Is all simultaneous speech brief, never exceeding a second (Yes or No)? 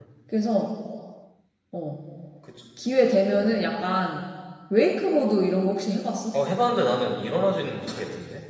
Yes